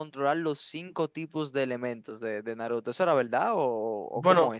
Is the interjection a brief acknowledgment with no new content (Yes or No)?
No